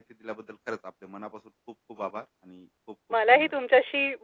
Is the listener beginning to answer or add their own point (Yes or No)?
Yes